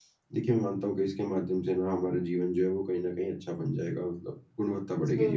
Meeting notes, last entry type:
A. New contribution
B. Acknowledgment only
A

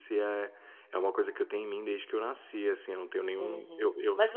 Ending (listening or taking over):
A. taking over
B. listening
A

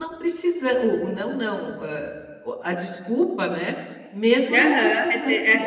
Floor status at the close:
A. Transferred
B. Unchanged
A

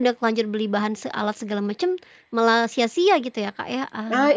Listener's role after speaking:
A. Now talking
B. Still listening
A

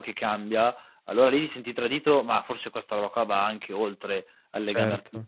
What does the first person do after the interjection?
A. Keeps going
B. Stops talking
B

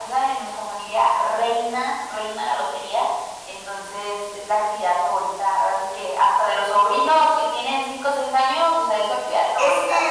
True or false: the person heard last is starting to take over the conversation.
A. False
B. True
B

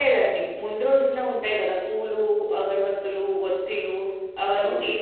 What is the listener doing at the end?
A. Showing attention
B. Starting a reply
A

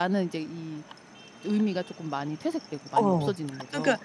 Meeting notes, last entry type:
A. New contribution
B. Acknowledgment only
A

